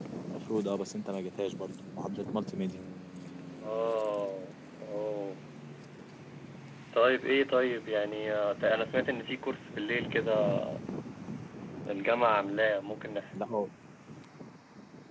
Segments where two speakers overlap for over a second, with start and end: none

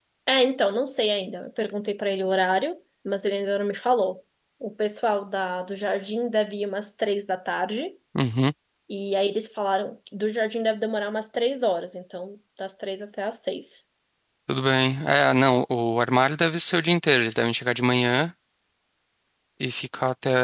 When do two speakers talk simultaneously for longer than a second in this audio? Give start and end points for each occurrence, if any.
none

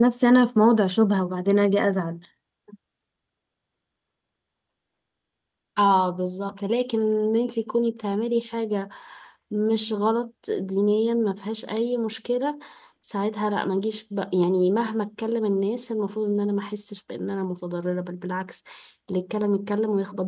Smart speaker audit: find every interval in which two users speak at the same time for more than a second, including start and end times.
none

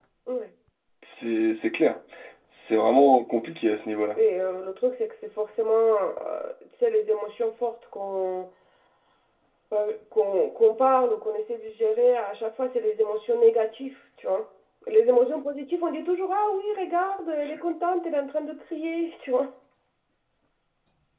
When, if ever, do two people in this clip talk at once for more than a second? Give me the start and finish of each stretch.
none

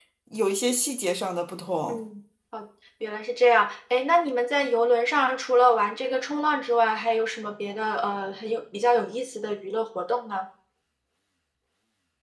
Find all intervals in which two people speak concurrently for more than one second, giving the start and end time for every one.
none

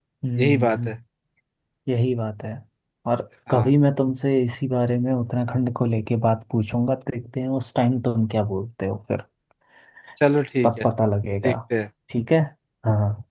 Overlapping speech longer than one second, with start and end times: none

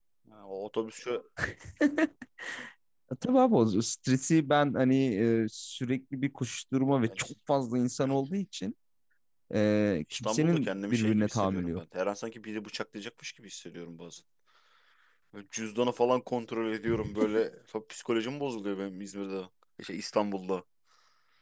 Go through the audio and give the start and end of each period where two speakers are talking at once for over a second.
10.1-11.8

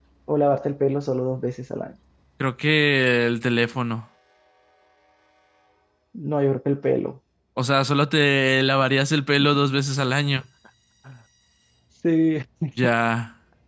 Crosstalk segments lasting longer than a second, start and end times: none

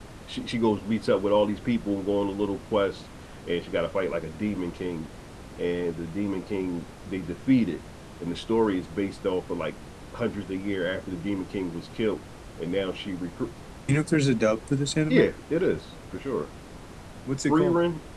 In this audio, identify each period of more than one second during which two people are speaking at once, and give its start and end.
none

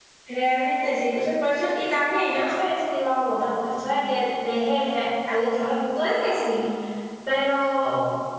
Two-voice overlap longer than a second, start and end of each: none

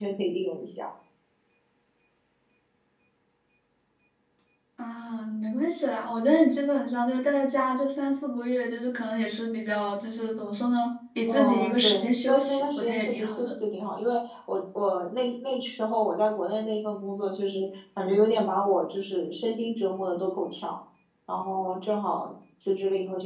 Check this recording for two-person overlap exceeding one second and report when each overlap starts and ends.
11.3-13.5

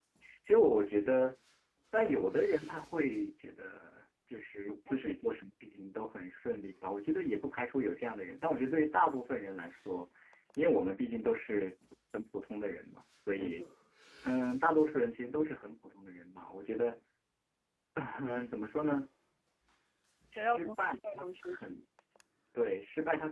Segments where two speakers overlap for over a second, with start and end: 20.4-21.8

